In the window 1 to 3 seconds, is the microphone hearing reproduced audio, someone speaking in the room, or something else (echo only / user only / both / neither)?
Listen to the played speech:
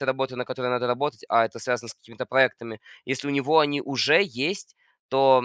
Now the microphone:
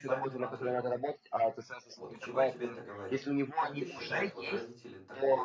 both